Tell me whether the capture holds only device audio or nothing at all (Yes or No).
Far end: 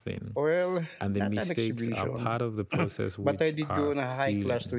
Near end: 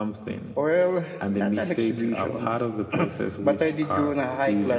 Yes